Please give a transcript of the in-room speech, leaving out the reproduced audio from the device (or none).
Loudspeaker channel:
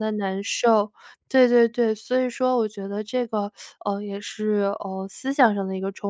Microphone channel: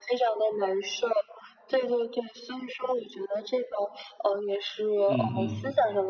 嗯嗯。